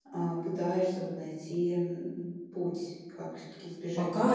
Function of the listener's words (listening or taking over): taking over